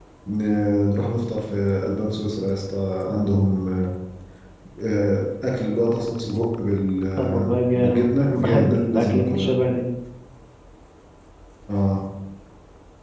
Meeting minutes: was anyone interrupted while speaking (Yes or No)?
Yes